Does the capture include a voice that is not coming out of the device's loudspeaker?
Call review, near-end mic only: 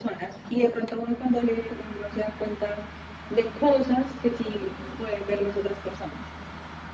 No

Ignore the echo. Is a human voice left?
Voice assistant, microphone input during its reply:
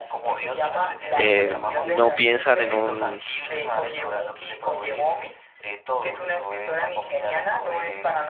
Yes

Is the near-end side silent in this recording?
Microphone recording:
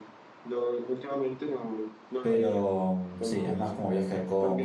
No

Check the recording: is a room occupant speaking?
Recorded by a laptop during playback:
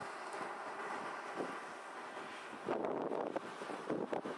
No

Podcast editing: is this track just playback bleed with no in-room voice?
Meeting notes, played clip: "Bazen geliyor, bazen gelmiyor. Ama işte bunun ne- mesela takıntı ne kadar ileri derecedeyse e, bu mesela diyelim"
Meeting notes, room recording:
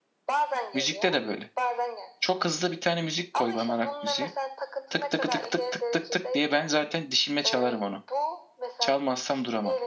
No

